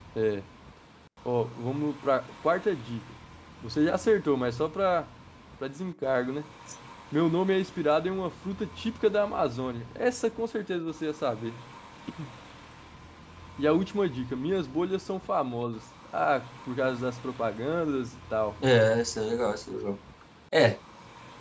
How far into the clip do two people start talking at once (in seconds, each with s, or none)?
none